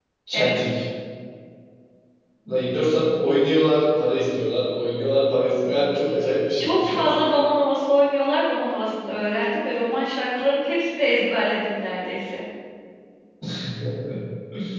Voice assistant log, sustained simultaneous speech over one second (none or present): none